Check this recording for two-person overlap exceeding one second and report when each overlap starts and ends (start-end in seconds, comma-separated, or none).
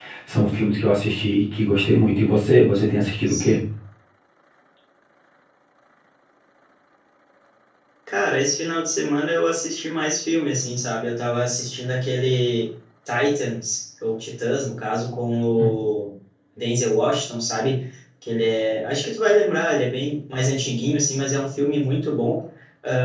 none